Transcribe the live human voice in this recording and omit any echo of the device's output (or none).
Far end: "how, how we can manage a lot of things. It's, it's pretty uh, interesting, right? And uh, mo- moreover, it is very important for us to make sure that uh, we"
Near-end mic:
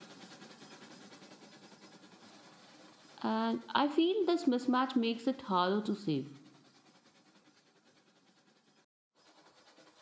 And I feel this mismatch makes it harder to save.